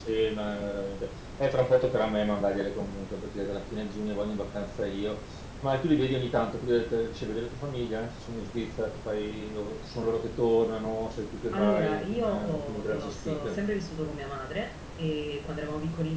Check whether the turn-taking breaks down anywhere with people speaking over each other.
Yes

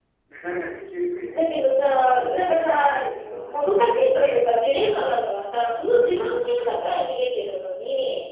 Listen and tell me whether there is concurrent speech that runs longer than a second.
Yes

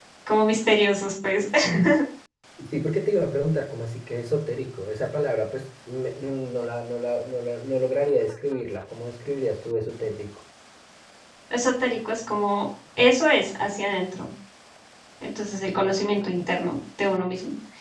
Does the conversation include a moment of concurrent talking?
No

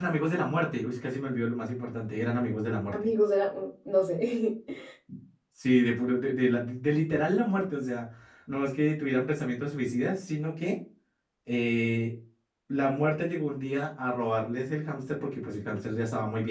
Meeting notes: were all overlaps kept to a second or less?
Yes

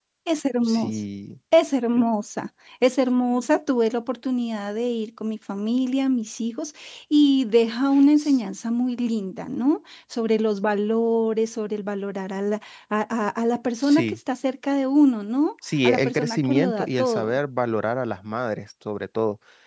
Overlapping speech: Yes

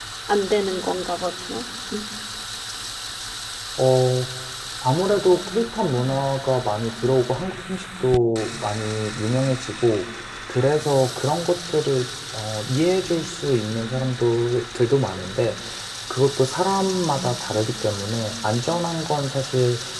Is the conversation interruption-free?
Yes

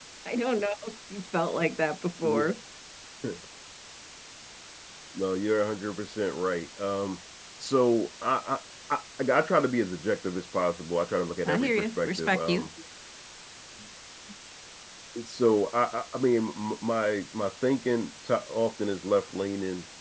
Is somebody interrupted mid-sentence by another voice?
Yes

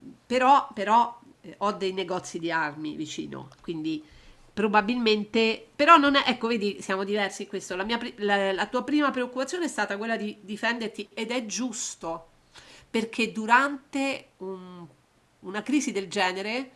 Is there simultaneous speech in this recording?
No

